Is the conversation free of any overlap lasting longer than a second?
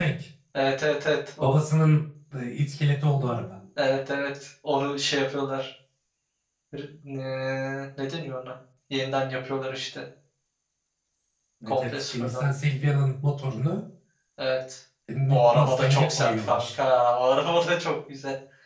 No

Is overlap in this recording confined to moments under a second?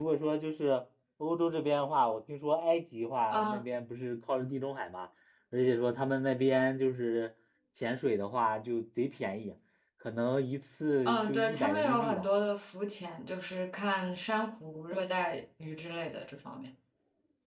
No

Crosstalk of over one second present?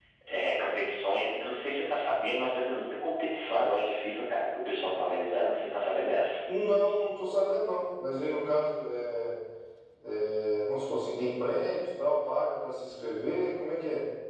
No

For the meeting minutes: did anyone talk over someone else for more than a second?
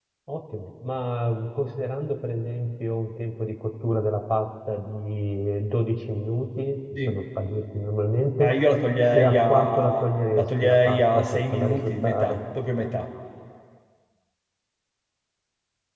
Yes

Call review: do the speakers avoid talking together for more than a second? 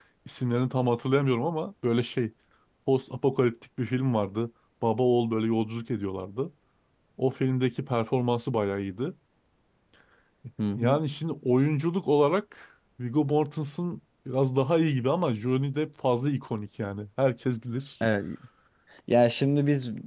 Yes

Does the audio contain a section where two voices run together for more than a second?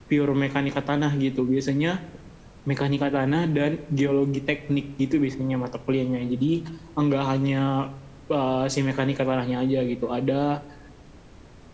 No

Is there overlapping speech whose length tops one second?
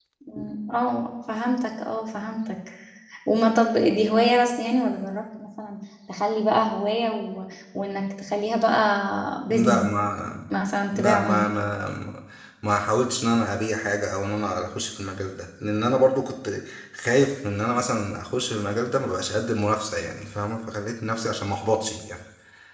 No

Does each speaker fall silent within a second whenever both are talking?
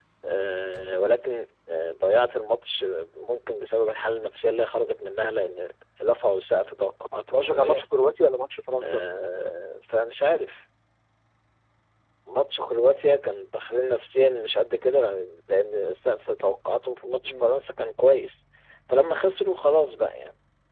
Yes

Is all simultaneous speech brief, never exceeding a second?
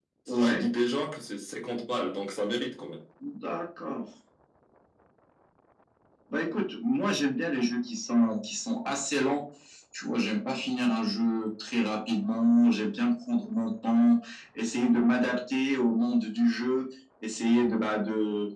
Yes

